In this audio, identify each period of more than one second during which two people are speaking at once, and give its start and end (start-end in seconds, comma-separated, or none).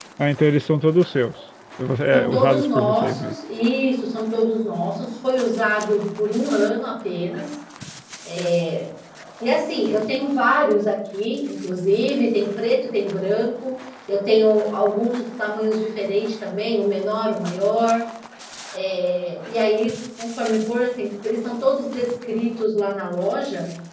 2.1-3.4